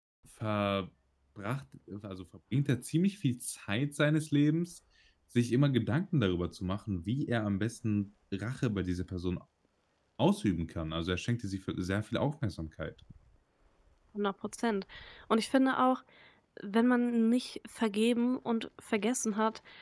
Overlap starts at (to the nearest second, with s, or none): none